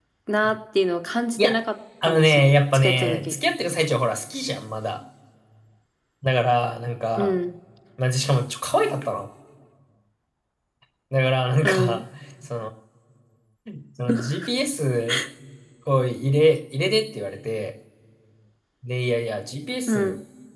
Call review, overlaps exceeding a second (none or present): present